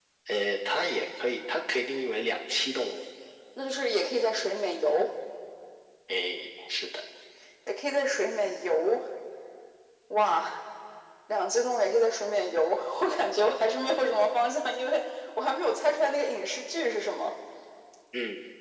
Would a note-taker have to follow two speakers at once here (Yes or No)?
No